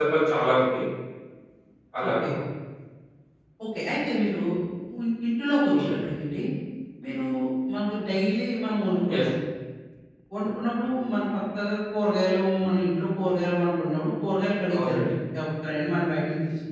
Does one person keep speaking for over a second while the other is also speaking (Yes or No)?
No